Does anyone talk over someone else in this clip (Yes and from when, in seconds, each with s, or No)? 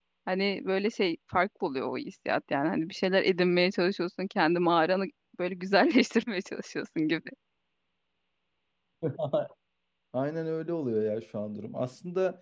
No